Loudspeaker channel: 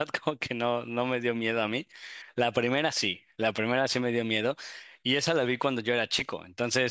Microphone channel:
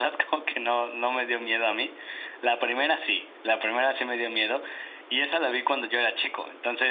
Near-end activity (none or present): none